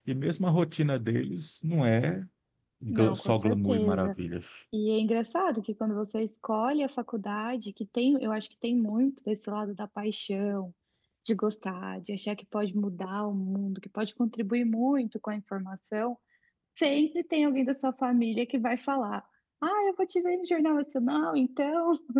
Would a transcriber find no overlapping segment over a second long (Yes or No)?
No